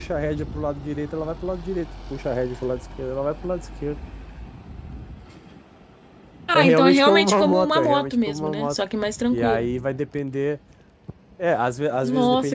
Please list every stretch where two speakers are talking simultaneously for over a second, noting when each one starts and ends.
6.5-8.8

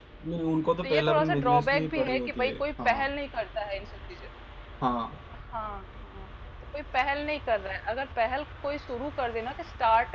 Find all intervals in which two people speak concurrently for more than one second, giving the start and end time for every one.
0.8-3.1

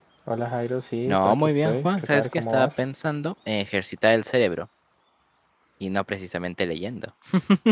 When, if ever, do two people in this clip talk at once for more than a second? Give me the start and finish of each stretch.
1.1-2.9

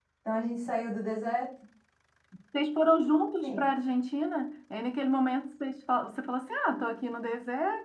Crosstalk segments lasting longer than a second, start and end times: none

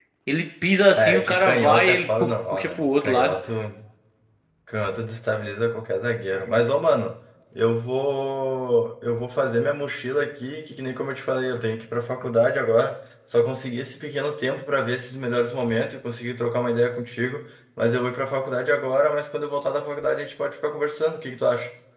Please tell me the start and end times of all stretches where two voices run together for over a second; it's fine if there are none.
0.9-3.3

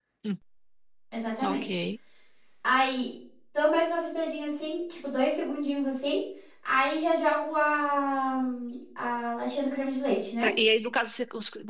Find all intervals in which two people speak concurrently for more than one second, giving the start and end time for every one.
none

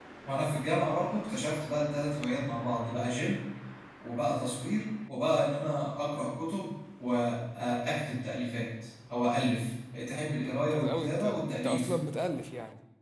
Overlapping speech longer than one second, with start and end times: 10.3-11.9

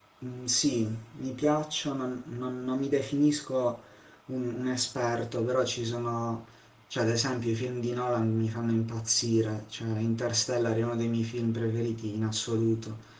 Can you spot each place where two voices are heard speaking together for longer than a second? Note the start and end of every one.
none

